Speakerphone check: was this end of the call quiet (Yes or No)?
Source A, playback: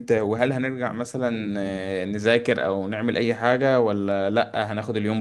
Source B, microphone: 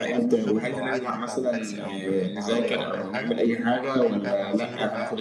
No